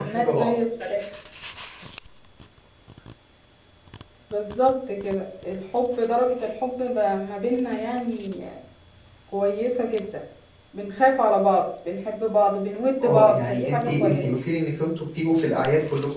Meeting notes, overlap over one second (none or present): present